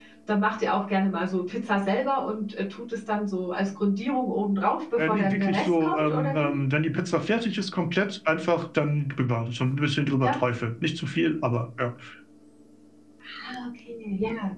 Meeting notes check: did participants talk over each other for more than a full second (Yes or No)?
Yes